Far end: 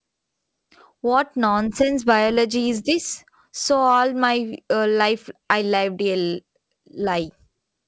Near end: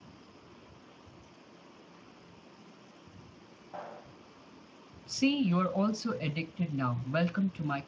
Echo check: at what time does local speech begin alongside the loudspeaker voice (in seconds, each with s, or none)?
5.0 s